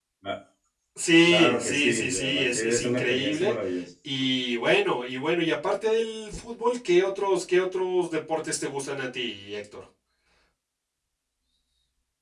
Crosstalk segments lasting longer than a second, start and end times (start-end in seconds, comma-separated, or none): 1.3-3.5